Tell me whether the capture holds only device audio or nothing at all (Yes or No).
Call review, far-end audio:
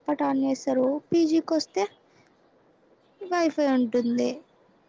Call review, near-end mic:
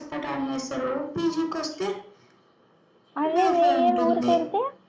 No